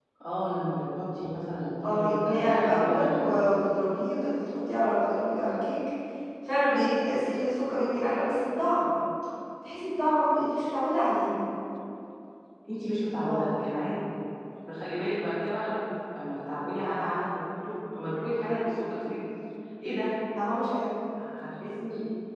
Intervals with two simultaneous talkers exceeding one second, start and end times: 1.8-3.4

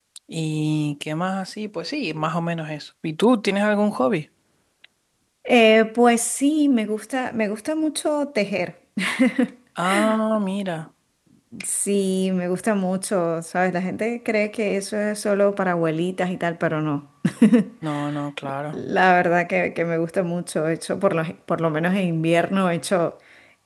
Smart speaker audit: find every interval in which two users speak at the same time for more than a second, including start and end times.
none

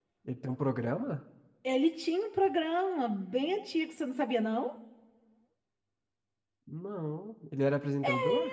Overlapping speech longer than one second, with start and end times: none

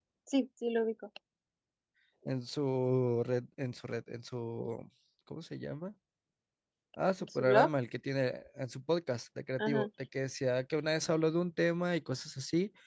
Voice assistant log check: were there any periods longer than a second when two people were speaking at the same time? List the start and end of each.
none

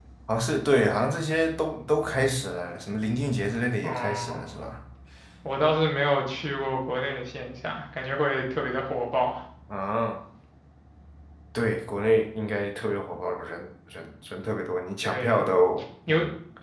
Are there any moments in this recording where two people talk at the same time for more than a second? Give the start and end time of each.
none

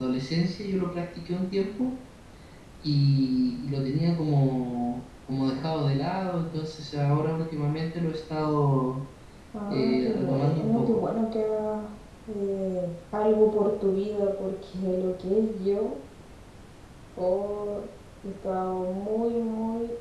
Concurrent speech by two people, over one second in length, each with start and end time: 9.7-11.0

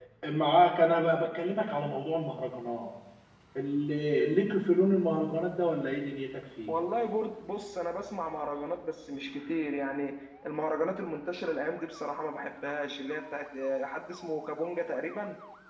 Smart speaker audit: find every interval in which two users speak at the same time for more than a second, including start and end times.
none

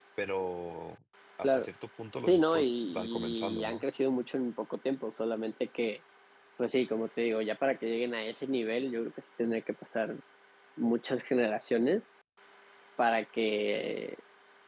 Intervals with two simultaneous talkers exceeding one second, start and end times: 2.3-3.8

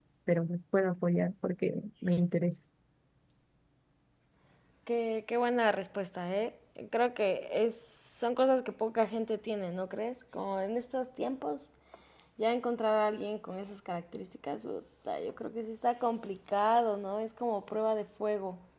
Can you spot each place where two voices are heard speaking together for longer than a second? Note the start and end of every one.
none

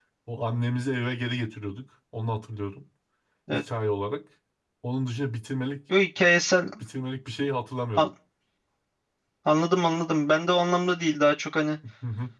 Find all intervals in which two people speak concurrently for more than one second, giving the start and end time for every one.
none

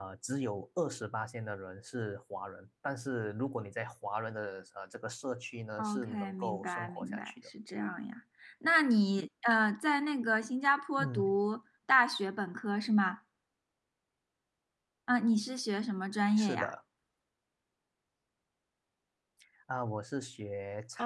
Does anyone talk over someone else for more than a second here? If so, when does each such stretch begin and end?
5.8-7.3

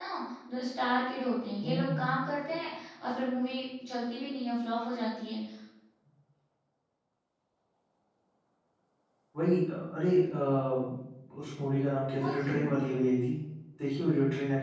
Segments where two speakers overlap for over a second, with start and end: none

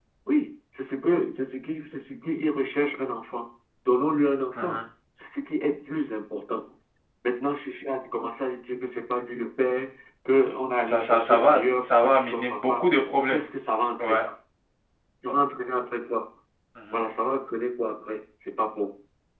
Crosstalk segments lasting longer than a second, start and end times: 10.9-12.7

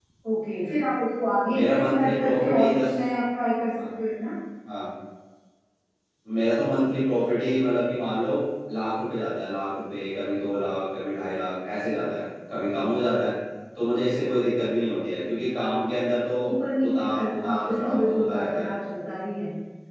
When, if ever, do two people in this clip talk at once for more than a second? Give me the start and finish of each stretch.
1.6-2.9, 16.9-18.7

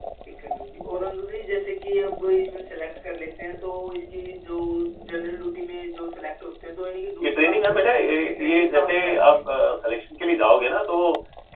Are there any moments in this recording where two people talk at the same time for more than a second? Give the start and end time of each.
7.2-9.4

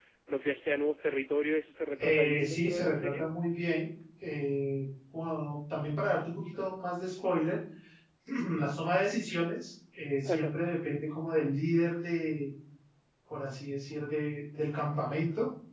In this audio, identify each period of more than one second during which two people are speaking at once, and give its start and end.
2.0-3.3

